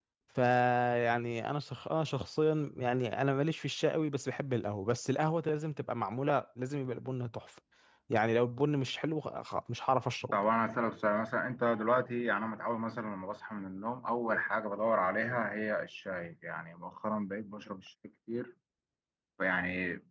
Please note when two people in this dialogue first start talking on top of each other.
none

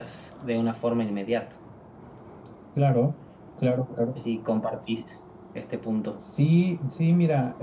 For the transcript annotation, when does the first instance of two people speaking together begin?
none

